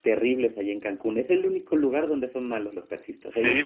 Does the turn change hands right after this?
Yes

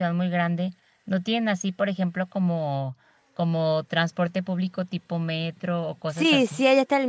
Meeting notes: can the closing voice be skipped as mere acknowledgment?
No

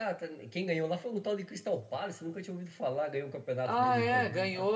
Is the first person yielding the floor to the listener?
Yes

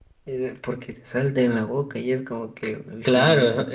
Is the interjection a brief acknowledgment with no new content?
No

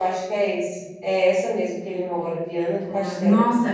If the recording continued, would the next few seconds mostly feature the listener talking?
Yes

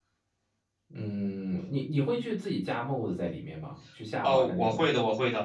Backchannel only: No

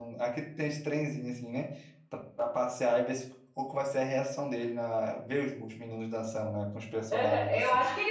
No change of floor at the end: No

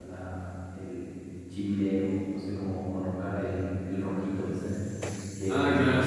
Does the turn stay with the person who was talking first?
No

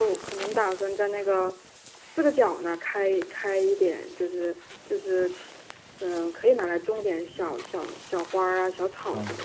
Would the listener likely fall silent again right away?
No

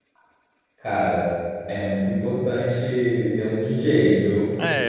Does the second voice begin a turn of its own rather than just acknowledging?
Yes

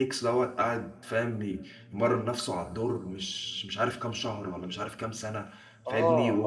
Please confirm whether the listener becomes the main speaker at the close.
No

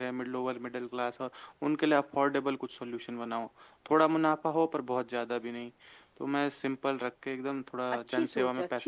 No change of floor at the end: No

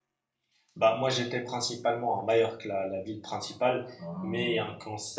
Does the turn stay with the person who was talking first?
Yes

